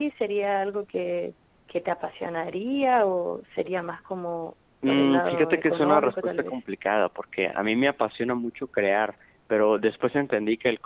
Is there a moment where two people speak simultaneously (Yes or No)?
Yes